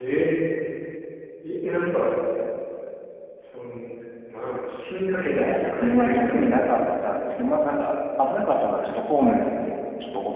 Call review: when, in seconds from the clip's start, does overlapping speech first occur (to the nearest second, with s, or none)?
5 s